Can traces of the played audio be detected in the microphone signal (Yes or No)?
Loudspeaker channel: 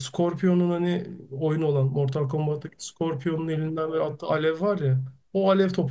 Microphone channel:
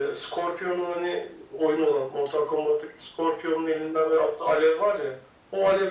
Yes